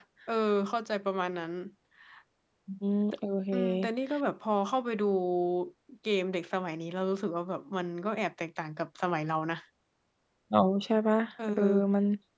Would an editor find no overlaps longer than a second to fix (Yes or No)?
Yes